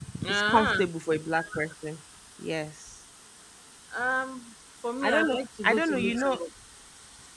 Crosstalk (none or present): present